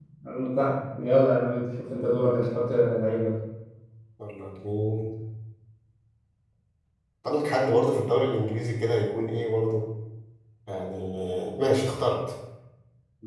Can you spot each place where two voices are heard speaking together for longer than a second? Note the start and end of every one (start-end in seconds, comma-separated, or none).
none